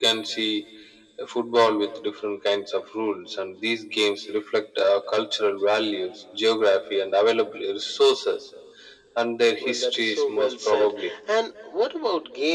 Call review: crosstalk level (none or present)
present